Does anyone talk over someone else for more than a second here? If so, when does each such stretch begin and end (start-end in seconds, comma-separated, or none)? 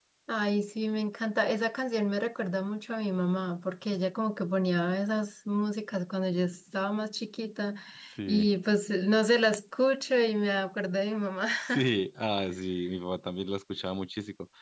none